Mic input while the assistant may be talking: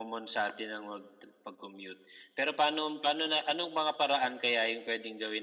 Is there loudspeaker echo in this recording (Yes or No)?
Yes